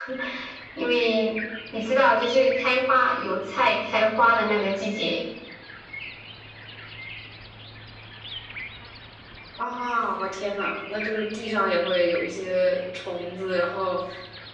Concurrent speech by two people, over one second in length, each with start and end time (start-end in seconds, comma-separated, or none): none